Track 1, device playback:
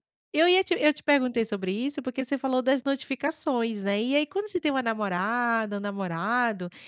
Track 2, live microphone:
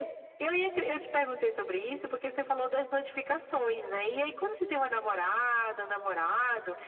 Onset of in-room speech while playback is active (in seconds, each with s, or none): none